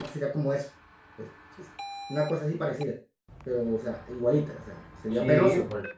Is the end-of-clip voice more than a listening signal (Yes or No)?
Yes